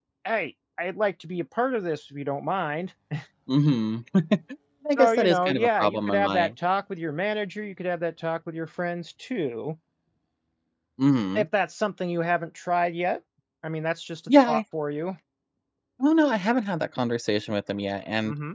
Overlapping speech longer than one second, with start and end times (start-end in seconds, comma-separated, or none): 4.9-6.5